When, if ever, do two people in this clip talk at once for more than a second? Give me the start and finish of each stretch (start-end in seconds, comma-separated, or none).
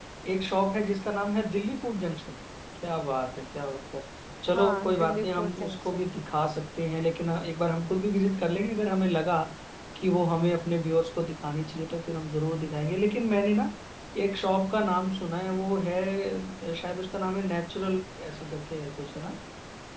4.5-6.1